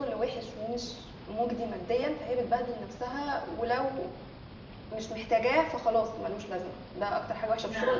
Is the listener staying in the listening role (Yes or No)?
Yes